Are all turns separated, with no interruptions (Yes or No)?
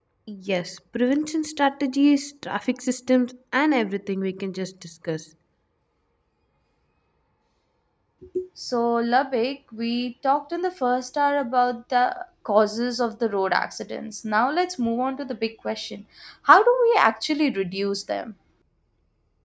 Yes